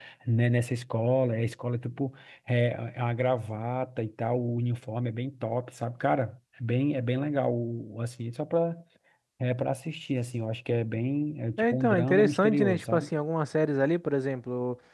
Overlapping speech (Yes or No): Yes